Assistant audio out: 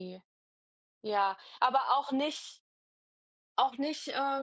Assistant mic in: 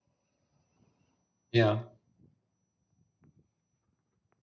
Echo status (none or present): none